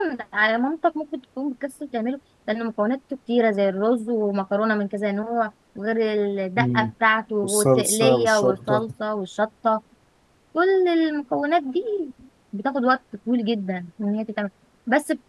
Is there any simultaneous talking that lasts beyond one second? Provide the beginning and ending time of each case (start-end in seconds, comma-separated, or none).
7.4-8.9